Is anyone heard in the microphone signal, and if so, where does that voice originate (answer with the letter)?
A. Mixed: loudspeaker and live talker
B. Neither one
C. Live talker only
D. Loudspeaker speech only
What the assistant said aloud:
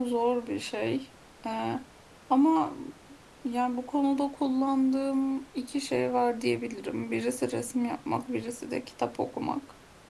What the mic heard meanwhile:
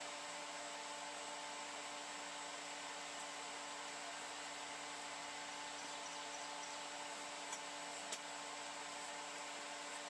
B